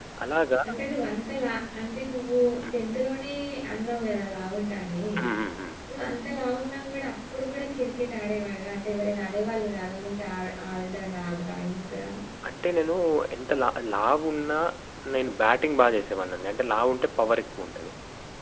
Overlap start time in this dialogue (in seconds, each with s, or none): none